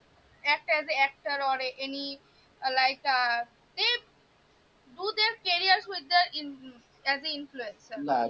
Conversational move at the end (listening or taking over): taking over